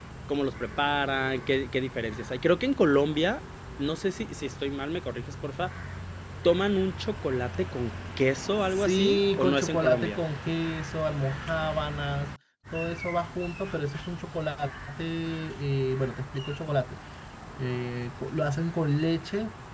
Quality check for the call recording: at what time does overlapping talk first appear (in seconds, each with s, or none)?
8.7 s